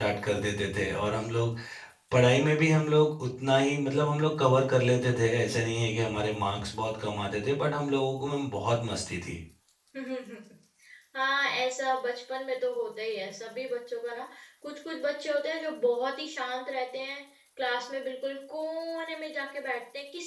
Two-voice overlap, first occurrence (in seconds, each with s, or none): none